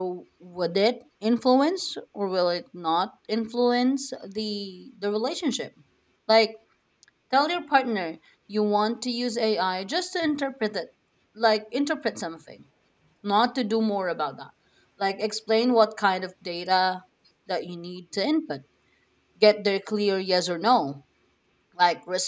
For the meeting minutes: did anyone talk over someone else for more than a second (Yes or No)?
No